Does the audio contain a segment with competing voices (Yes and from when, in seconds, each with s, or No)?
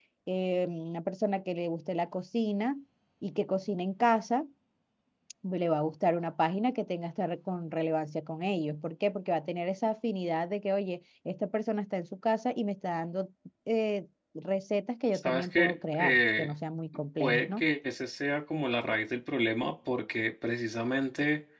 Yes, from 15.1 s